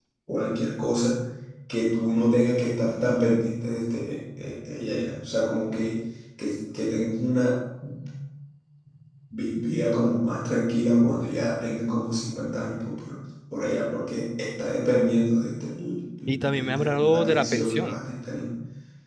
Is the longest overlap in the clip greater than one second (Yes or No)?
Yes